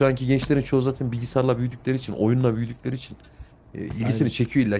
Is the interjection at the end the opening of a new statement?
No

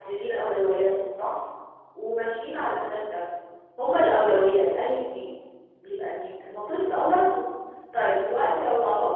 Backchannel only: Yes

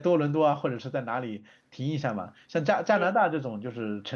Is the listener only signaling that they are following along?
Yes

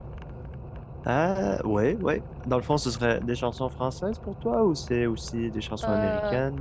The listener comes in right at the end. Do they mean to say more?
Yes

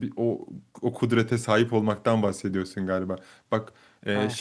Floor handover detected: No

